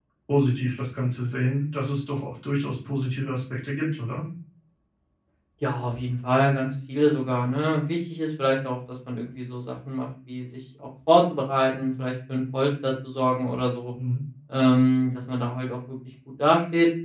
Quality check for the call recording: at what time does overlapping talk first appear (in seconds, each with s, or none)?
none